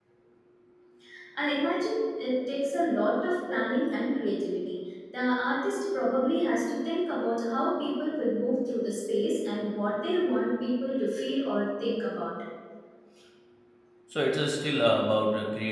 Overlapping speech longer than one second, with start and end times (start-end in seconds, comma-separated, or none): none